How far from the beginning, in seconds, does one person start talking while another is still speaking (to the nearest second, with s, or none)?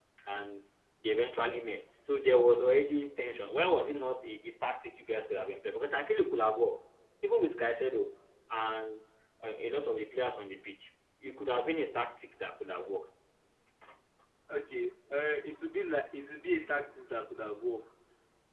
none